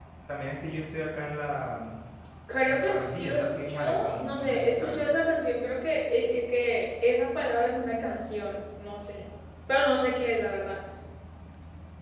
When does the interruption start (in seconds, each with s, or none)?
2.7 s